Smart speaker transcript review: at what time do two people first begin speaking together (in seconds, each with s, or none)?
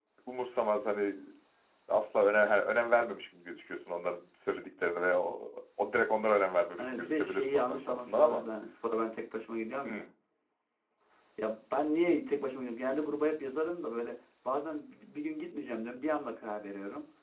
6.8 s